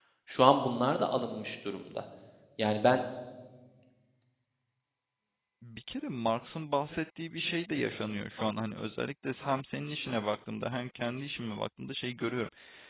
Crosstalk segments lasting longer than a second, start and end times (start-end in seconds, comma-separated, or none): none